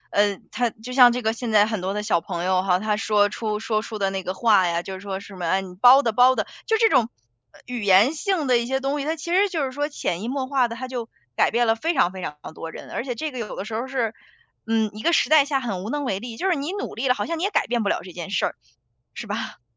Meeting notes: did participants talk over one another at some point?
No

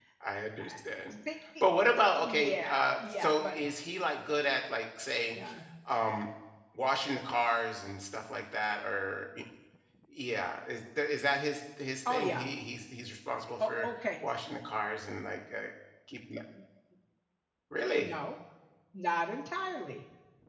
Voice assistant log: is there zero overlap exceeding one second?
No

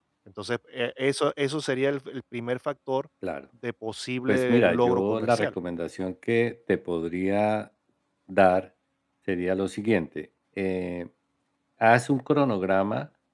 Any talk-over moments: Yes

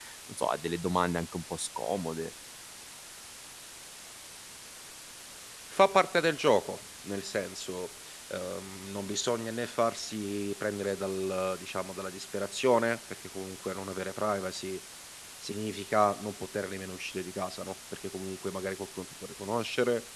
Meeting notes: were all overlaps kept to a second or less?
Yes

